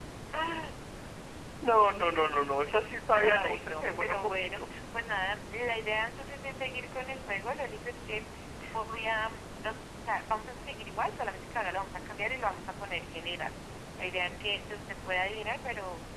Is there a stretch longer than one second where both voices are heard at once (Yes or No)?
Yes